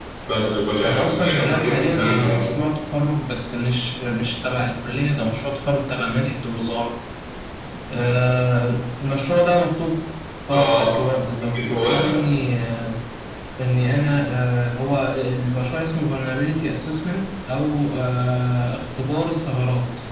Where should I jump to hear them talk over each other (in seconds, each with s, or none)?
0.9 s